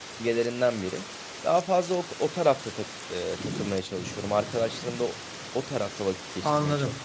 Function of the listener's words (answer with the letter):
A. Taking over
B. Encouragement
A